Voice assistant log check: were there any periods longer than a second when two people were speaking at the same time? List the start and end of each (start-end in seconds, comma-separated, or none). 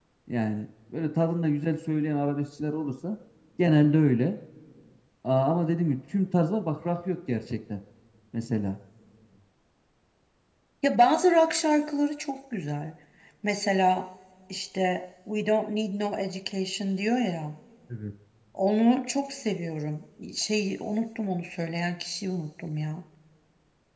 none